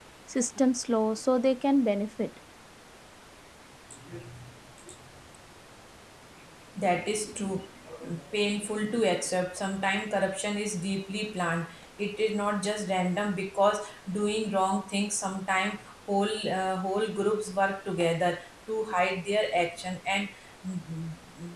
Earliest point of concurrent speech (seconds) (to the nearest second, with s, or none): none